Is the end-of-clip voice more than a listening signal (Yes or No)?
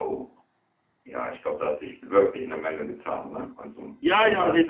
Yes